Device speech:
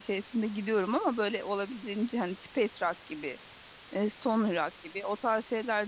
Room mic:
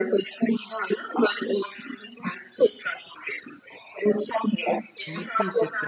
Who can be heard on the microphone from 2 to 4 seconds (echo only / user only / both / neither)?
echo only